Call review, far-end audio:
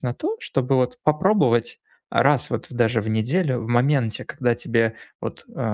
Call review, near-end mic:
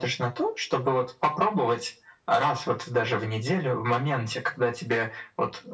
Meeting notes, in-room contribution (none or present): none